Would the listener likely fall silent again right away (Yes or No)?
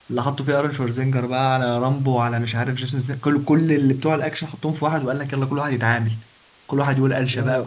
Yes